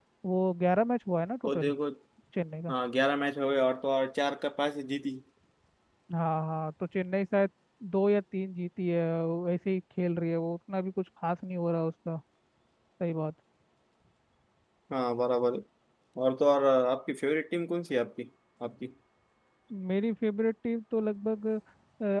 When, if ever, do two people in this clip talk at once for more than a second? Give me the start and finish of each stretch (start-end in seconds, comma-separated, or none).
none